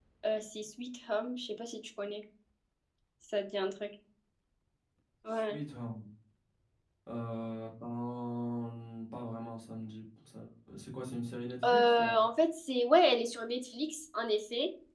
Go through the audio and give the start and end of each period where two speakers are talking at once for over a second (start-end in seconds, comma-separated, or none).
none